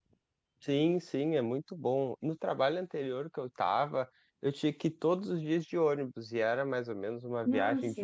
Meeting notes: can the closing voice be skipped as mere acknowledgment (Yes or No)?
Yes